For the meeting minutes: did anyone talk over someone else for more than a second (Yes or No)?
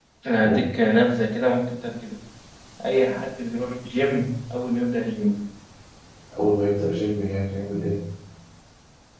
No